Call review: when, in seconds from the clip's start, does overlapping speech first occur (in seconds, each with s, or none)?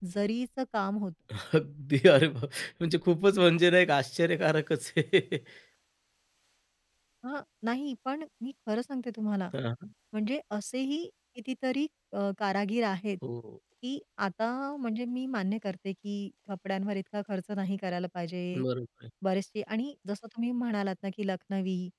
none